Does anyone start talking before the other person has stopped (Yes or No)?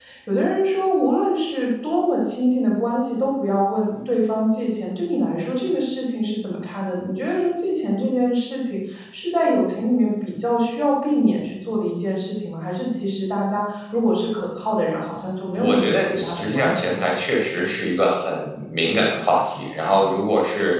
Yes